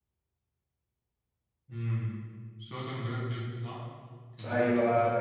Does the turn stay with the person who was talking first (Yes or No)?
No